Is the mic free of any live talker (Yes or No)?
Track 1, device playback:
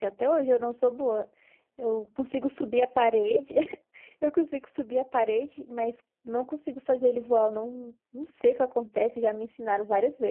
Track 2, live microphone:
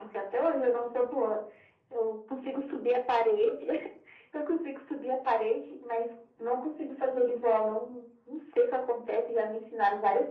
Yes